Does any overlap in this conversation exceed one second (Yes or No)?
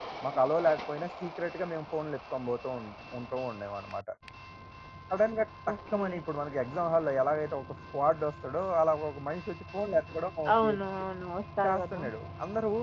No